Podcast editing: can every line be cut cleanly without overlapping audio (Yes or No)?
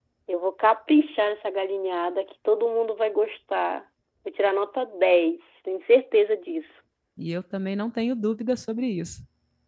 Yes